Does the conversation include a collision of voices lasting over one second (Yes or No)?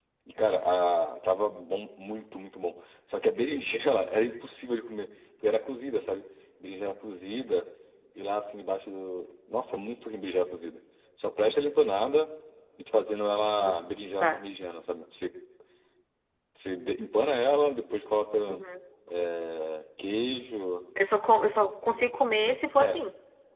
No